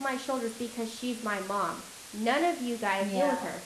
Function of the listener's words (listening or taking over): listening